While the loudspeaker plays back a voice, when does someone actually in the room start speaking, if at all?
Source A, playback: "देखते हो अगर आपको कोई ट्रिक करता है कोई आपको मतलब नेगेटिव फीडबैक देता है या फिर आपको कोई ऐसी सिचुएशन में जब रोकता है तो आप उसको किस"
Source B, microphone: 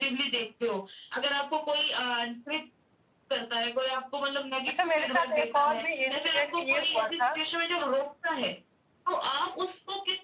4.7 s

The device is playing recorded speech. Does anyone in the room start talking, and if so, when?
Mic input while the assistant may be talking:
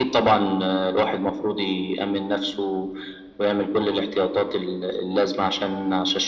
none

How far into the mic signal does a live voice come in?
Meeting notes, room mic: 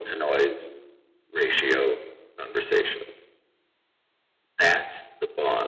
none

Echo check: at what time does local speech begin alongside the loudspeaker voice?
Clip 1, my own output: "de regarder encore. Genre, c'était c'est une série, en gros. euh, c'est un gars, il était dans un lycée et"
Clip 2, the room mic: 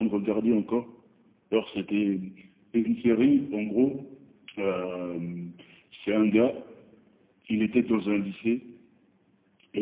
none

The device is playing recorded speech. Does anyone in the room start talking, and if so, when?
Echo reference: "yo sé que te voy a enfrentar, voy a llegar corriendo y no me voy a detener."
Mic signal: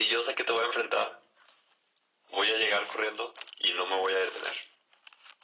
none

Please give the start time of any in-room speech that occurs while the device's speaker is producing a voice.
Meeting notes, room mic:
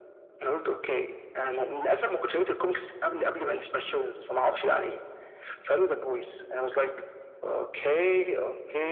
none

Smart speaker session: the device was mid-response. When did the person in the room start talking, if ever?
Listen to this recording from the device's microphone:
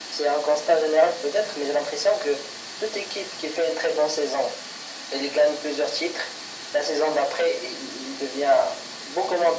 none

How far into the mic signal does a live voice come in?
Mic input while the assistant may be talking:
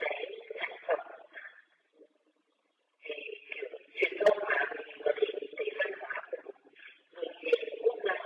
none

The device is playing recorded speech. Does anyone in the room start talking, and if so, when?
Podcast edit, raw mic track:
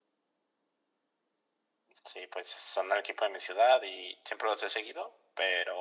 none

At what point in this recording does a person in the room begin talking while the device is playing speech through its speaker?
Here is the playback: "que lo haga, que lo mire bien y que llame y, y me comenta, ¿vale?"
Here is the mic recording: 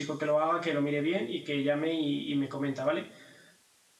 none

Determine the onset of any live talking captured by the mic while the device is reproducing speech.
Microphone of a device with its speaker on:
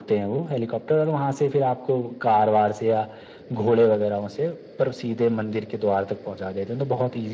none

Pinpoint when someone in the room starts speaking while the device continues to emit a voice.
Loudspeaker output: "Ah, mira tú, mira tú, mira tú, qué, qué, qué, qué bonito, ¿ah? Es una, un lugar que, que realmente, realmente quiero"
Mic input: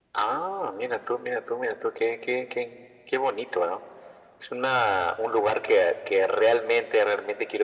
none

